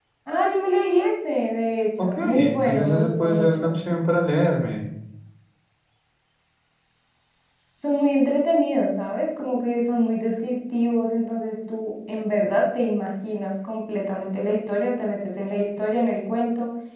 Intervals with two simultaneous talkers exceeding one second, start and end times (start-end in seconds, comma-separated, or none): 2.0-3.8